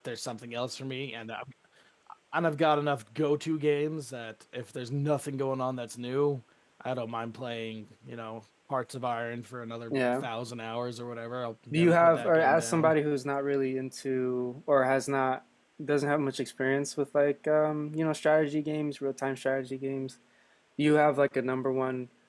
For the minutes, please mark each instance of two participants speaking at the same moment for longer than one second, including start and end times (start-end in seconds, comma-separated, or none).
11.7-12.9